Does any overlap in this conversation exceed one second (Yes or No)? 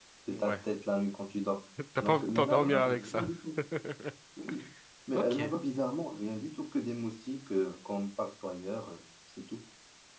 Yes